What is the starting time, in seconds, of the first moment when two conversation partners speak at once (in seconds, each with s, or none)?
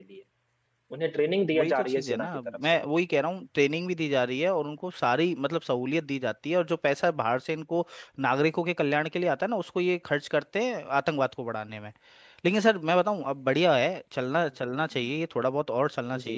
1.5 s